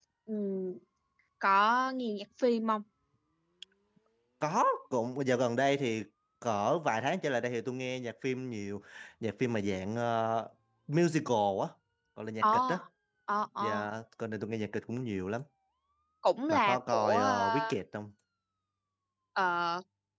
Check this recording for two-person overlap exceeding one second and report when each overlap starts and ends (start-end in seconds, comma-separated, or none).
16.5-17.7